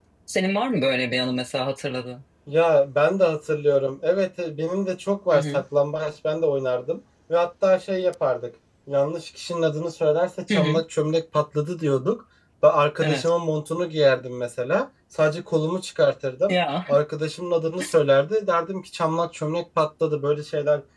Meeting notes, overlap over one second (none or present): none